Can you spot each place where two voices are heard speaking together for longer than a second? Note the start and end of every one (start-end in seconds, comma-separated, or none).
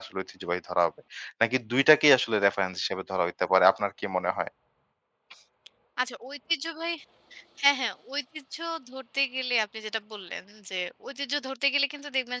none